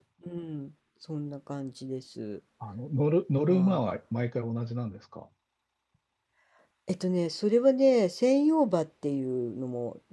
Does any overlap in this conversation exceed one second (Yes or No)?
No